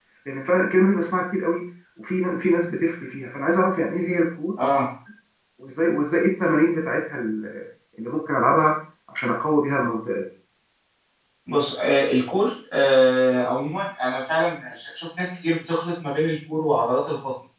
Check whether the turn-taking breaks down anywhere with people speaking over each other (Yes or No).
No